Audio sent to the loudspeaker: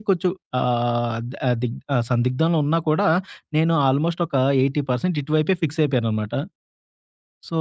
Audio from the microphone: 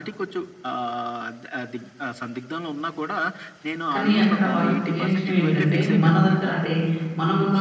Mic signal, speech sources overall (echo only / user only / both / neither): both